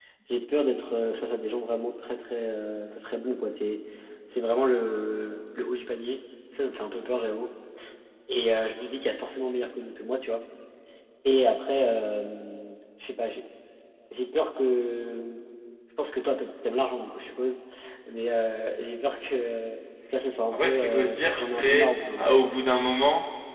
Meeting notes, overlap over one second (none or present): present